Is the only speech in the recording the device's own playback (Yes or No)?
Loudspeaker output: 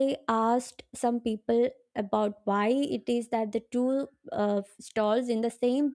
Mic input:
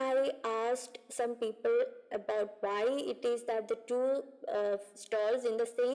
Yes